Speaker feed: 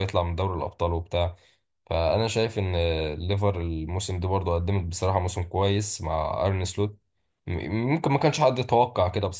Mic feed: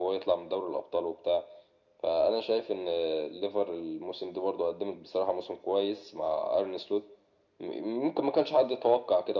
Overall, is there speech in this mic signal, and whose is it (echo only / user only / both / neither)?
echo only